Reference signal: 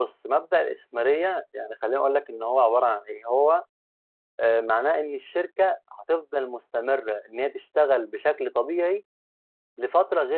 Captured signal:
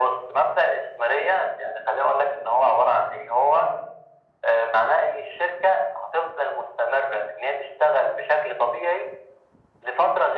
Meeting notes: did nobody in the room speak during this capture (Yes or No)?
Yes